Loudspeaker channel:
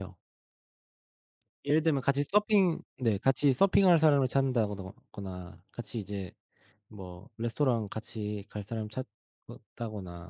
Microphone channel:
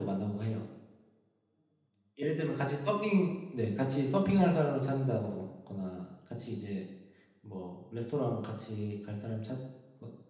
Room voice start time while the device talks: none

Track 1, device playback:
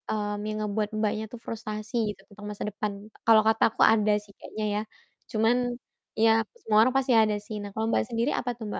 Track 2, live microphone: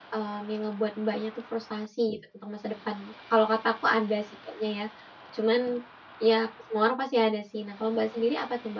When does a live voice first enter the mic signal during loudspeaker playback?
none

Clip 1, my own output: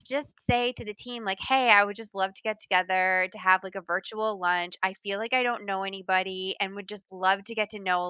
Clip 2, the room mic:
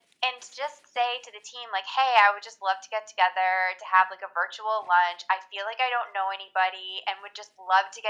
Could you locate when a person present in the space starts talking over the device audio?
none

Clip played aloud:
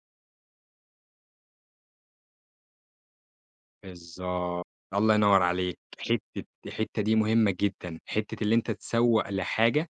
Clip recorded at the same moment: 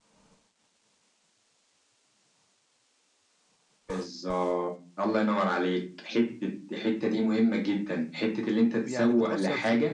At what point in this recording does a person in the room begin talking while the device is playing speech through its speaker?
8.8 s

